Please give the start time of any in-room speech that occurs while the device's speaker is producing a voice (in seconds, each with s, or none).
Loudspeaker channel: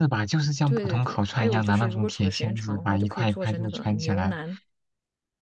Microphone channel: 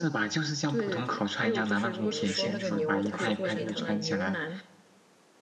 2.0 s